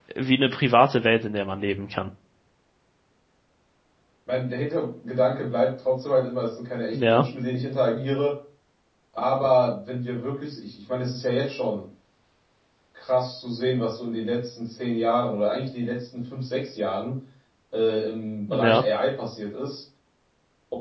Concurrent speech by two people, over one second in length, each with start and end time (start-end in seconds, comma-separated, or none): none